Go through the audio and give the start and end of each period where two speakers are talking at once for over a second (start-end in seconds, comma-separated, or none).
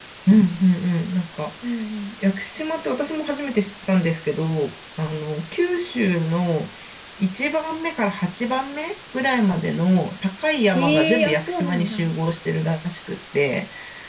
10.7-12.1